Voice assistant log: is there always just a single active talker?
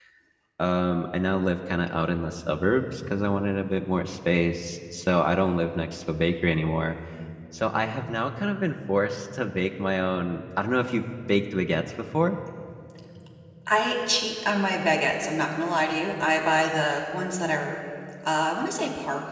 Yes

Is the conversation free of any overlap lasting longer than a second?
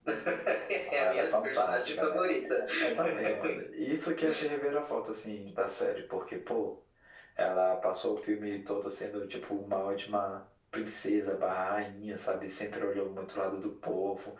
No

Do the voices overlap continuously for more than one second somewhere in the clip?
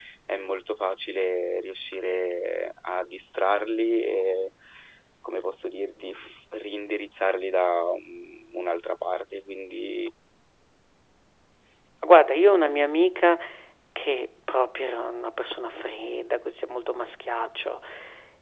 No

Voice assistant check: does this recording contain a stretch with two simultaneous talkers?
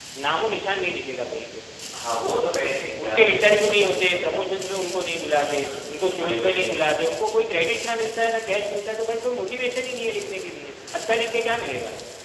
Yes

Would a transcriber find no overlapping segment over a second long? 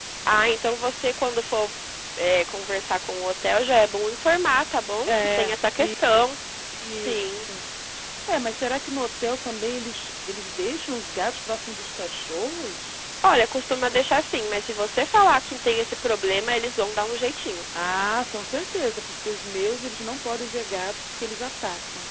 No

